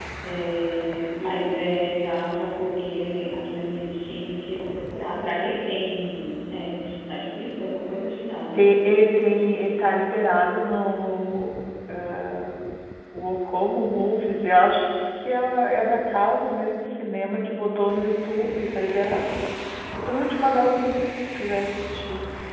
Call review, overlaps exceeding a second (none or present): none